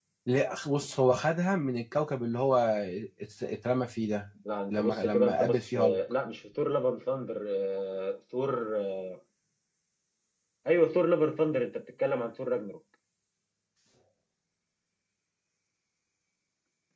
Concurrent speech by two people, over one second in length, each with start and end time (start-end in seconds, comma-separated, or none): 4.7-6.0